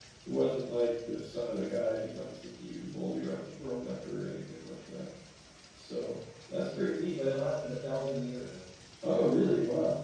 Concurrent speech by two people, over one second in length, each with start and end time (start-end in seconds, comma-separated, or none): none